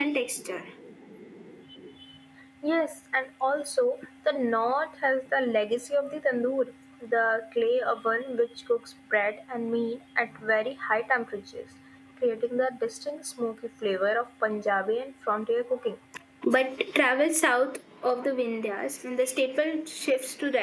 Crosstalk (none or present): none